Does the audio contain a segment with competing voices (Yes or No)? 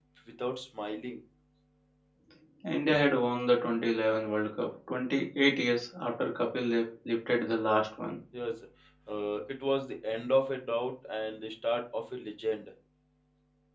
No